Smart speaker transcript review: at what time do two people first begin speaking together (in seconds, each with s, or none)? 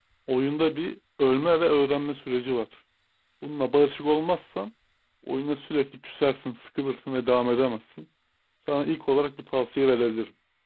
none